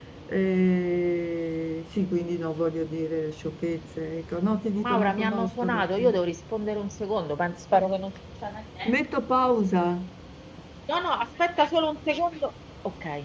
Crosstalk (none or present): present